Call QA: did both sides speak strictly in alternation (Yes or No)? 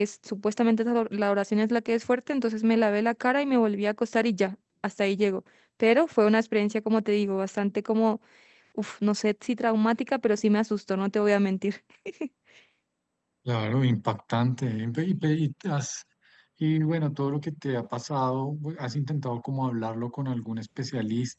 Yes